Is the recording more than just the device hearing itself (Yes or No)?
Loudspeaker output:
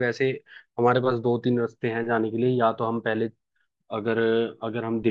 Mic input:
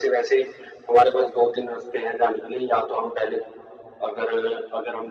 No